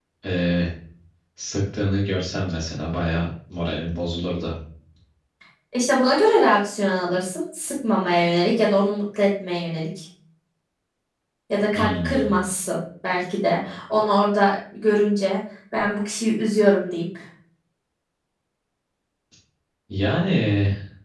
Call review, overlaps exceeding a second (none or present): none